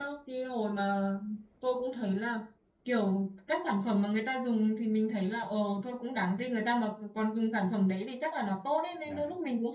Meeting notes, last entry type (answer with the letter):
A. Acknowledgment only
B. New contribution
A